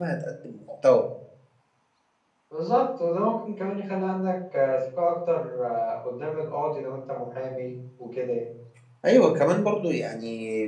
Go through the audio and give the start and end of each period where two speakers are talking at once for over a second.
none

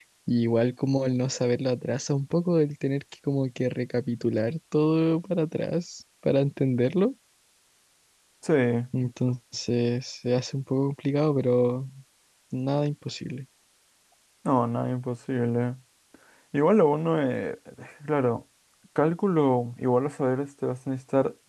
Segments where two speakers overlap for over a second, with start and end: none

